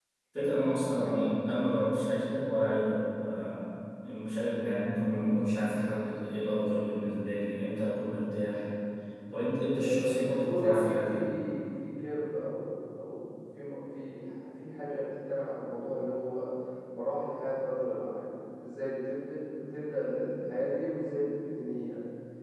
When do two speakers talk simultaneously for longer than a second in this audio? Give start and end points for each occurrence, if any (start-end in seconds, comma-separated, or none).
9.6-11.4